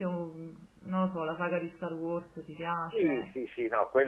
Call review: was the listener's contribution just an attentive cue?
No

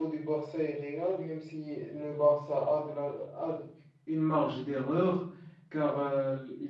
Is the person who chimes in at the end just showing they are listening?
Yes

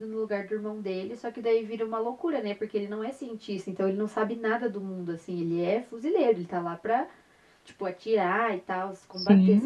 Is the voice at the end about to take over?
Yes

